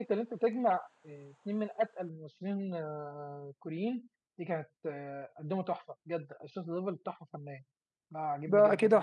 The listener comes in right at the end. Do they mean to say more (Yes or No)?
Yes